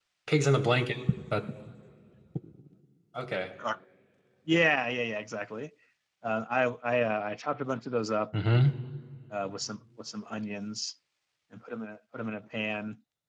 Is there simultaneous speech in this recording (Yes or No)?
No